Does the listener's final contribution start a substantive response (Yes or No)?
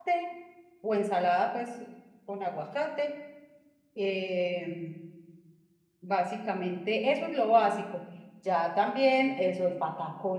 No